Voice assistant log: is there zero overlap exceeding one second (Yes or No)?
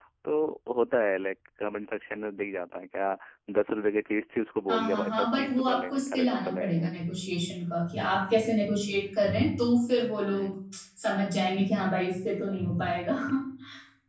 No